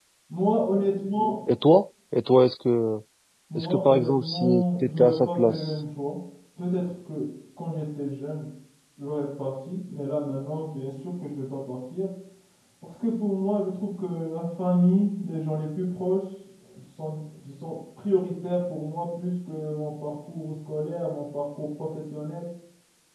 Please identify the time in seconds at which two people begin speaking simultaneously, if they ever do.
3.6 s

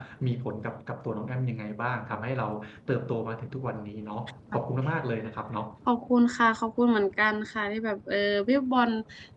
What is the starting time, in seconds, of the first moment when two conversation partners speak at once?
none

